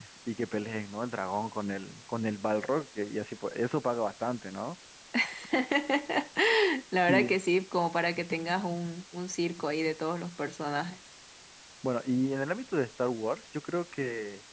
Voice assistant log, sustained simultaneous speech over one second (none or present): none